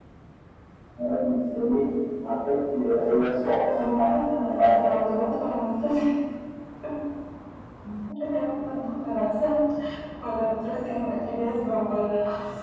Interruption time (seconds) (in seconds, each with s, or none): 3.7 s